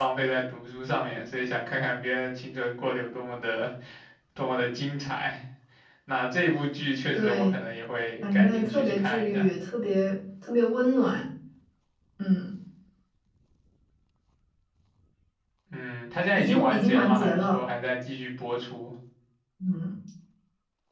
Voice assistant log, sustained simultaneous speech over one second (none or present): present